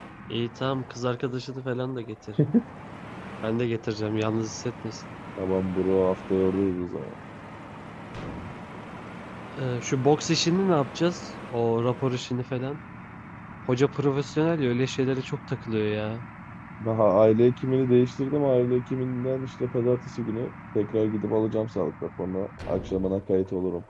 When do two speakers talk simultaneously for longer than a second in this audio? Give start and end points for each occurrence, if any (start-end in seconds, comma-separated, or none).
none